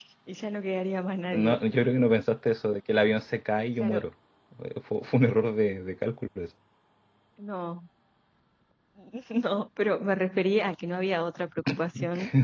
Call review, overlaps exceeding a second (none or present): none